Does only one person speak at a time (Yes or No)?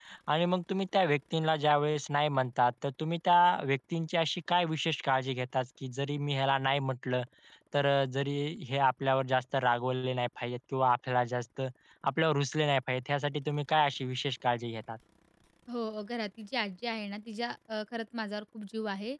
Yes